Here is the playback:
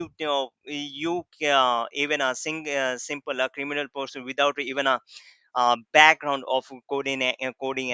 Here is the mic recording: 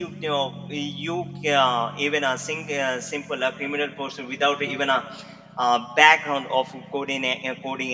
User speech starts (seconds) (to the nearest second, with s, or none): none